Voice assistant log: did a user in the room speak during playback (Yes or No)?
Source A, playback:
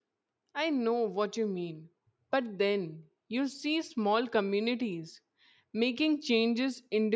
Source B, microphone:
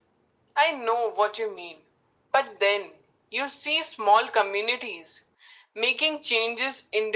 No